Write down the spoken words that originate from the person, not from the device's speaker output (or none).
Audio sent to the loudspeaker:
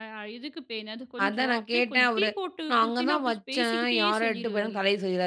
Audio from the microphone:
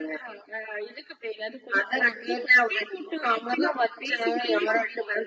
none